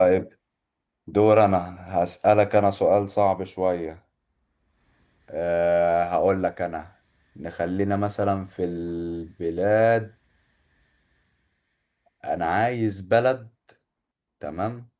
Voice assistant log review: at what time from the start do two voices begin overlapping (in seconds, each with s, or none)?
none